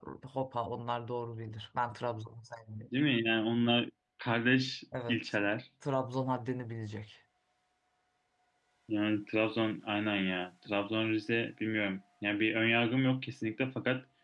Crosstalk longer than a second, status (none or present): none